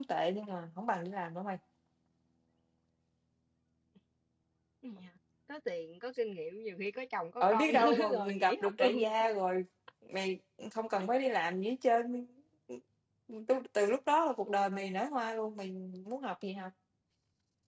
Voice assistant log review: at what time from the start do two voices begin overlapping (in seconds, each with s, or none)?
7.4 s